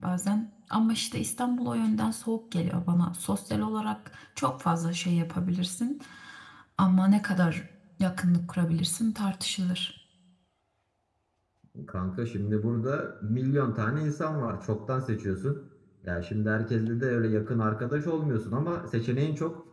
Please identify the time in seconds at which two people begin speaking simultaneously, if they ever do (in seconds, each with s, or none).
none